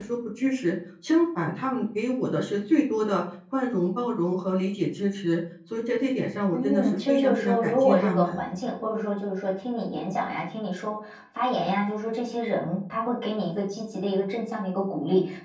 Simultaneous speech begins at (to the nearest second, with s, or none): 7 s